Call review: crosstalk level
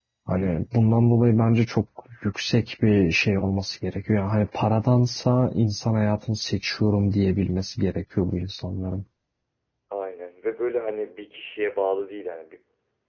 none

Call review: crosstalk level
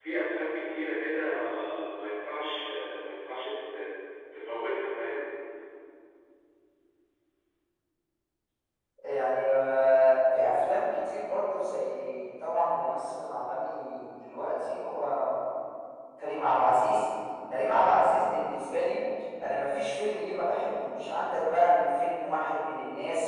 none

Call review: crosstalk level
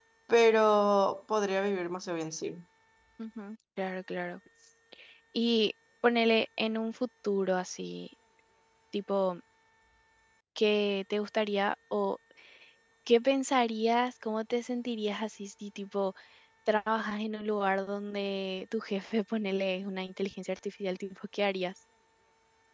none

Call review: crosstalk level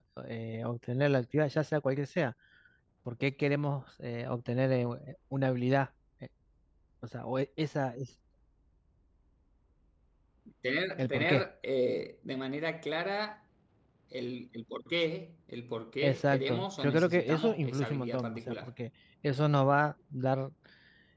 present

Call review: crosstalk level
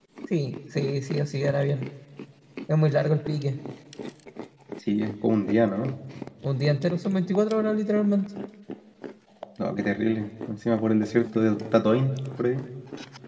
none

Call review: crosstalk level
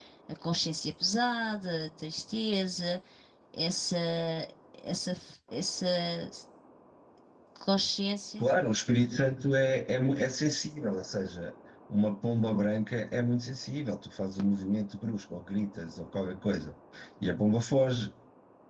none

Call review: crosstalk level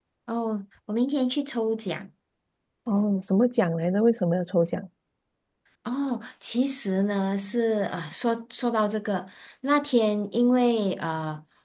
none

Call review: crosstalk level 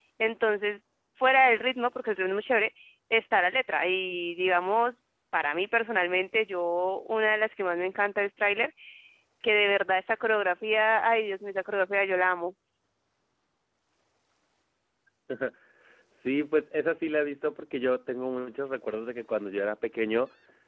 none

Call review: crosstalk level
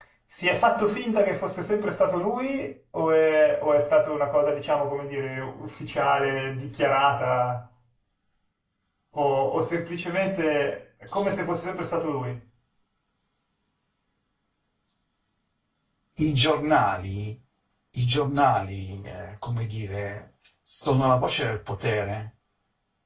none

